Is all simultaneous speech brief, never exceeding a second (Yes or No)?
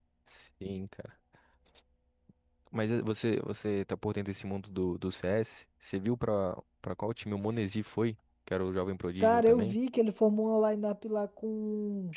Yes